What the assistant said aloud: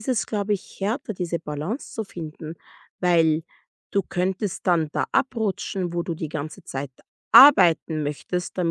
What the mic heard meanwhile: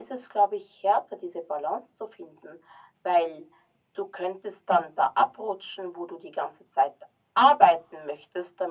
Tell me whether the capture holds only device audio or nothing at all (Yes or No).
Yes